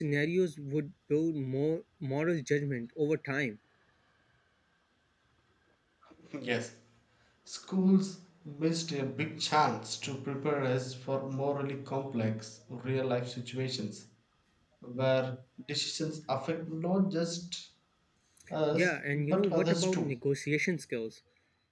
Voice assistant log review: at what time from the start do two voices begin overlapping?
18.8 s

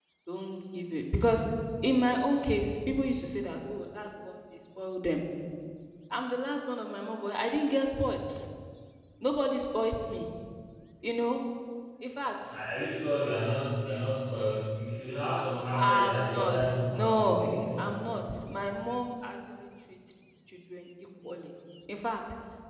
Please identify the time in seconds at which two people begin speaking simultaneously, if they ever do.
15.7 s

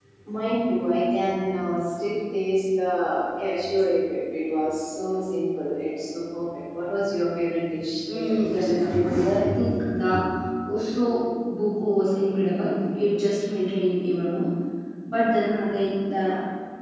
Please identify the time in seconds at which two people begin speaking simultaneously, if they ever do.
8.1 s

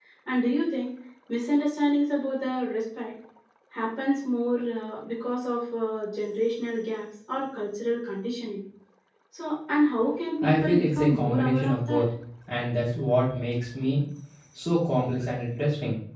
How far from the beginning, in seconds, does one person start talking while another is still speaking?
10.4 s

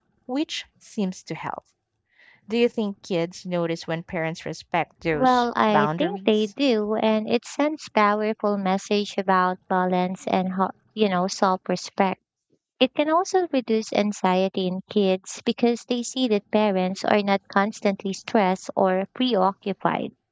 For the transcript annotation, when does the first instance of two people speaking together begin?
5.1 s

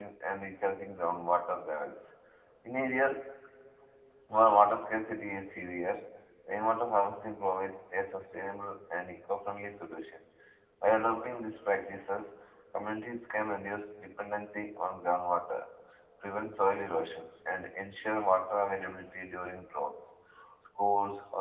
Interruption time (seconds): none

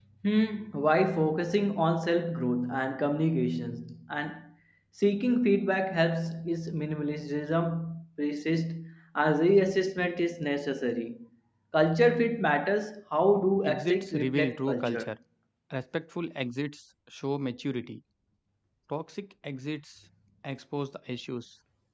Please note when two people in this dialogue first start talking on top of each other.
13.6 s

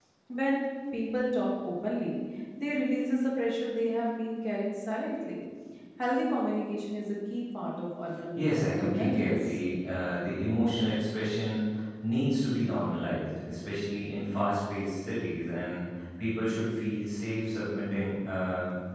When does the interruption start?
8.3 s

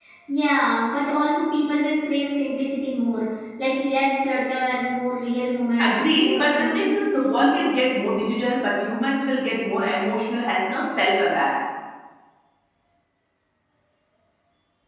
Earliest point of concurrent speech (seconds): 5.8 s

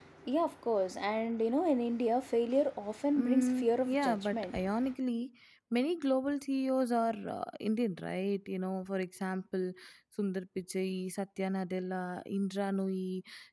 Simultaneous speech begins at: 3.2 s

